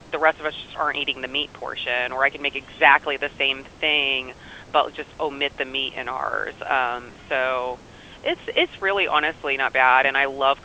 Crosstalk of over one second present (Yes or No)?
No